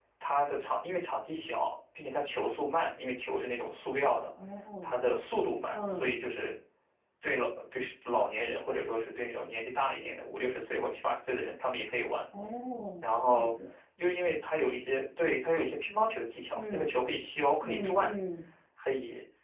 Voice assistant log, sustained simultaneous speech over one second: none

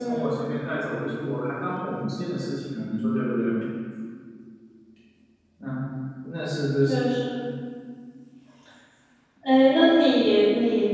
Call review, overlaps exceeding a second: none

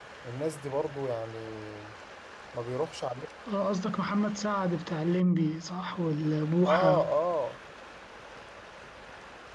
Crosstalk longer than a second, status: none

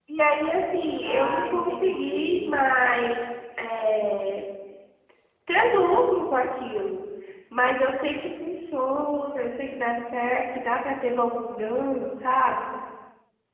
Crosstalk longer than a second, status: present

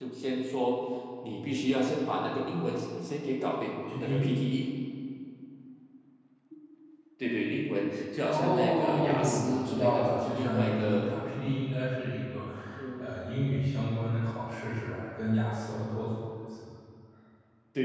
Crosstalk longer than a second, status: present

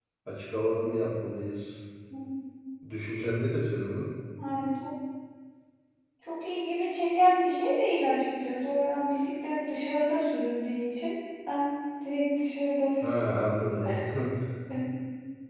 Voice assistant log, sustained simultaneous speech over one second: none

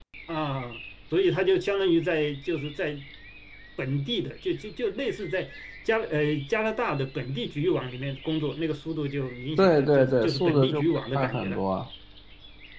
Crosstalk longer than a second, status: present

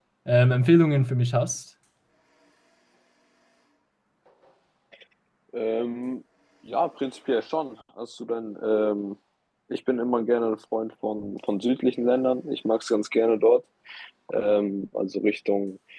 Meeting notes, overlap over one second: none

